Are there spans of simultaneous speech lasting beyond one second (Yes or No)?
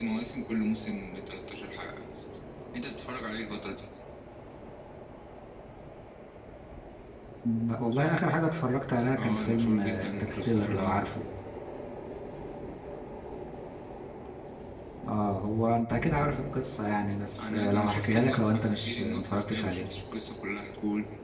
Yes